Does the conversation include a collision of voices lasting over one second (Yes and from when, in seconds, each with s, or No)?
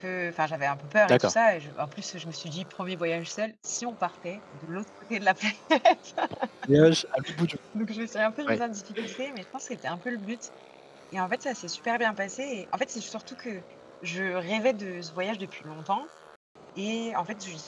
No